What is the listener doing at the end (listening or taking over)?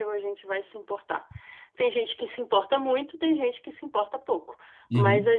listening